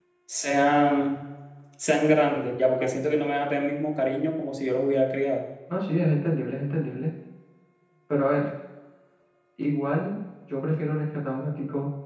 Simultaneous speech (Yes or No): No